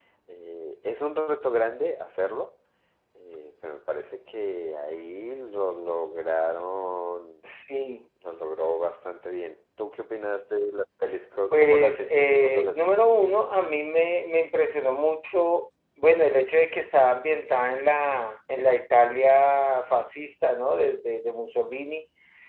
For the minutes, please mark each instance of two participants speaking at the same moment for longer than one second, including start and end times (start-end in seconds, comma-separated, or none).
11.5-13.0